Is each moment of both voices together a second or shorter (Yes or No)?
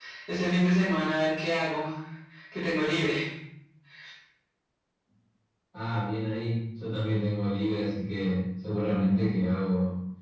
Yes